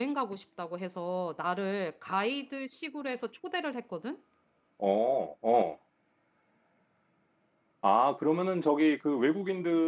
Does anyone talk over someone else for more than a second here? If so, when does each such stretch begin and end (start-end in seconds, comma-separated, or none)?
none